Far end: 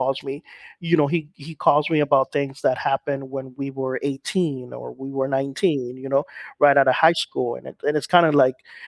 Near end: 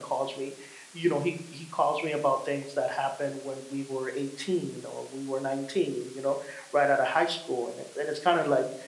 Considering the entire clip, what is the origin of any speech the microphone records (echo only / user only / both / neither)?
echo only